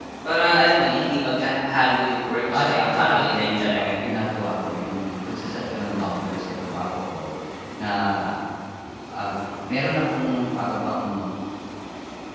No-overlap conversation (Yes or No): No